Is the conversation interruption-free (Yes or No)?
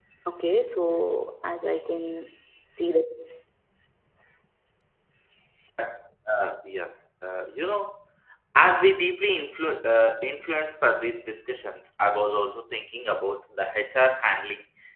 Yes